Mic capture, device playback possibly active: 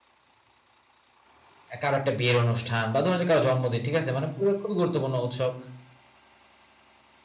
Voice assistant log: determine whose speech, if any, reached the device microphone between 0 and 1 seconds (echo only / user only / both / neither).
neither